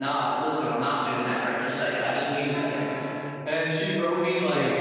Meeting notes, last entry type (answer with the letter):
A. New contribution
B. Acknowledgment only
B